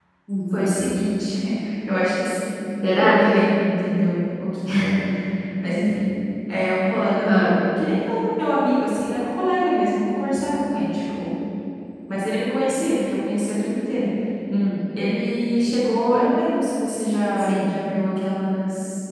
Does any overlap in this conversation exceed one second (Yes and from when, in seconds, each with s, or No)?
No